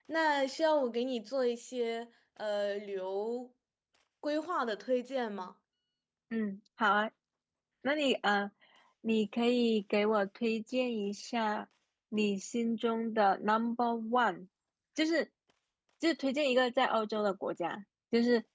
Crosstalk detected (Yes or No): No